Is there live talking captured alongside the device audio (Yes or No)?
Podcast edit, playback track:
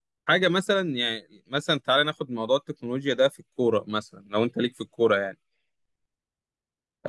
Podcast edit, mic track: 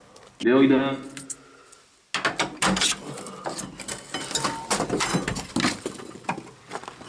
Yes